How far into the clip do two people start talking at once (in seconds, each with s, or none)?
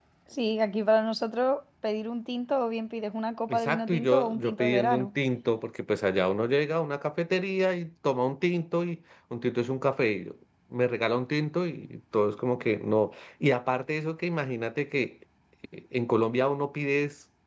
3.5 s